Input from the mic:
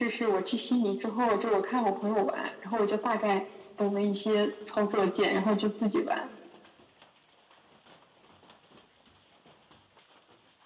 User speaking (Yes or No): No